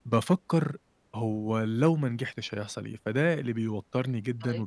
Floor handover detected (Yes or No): No